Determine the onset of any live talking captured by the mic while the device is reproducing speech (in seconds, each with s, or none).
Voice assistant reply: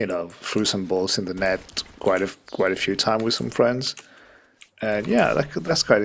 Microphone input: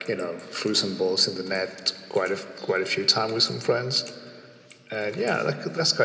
none